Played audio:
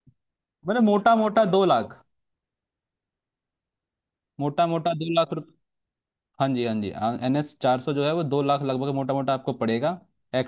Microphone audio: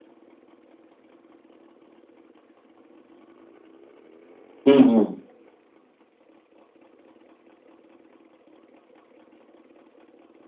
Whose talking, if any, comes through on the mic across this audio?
user only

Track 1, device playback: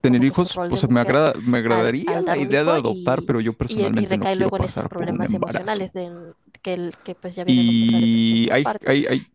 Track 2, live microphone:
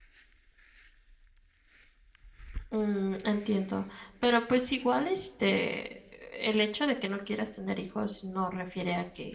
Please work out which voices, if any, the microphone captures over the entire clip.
user only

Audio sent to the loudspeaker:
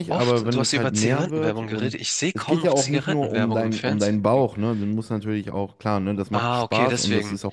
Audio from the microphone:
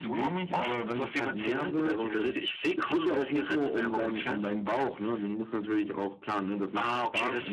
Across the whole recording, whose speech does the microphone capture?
echo only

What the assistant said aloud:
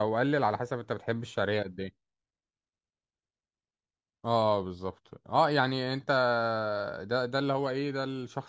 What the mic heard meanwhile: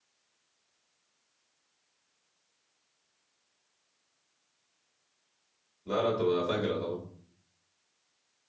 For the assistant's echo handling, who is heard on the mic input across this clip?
user only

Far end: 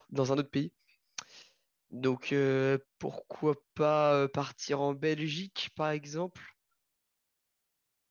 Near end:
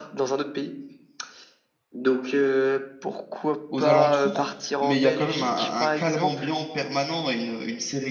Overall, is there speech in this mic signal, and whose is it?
both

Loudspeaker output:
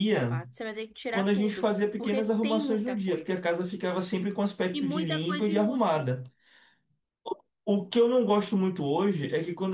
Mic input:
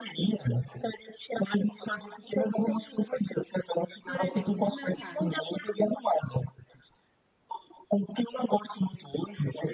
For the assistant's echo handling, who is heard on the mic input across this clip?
both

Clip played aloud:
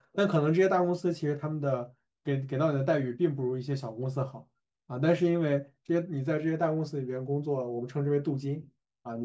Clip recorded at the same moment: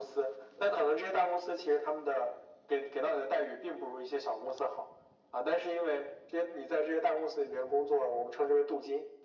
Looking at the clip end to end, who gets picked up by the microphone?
echo only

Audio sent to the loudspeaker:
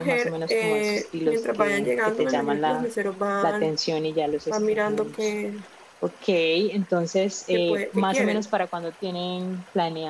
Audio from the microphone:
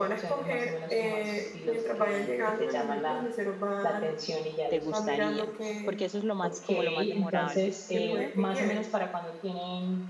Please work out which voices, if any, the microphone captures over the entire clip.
both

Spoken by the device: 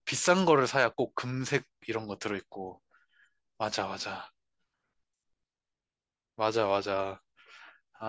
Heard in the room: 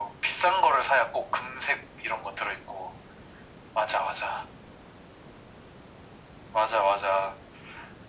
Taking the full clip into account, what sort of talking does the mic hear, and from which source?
echo only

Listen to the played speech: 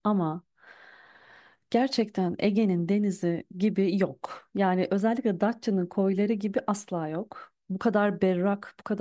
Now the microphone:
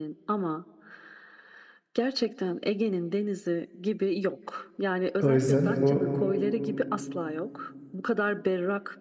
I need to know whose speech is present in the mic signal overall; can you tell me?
both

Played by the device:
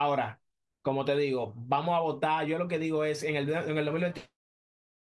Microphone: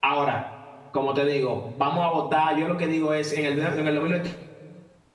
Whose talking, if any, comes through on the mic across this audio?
echo only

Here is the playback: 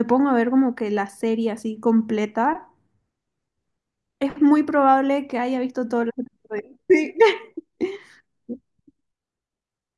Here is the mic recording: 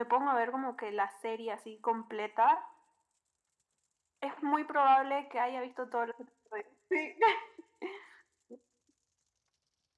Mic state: echo only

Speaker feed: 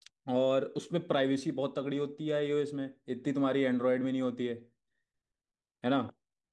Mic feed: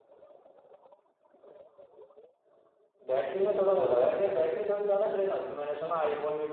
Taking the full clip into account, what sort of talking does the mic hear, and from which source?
user only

